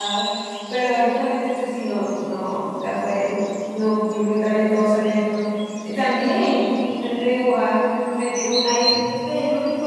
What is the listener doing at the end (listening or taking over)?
listening